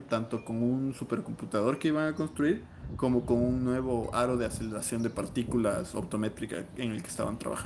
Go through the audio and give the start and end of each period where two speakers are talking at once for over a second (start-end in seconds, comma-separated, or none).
none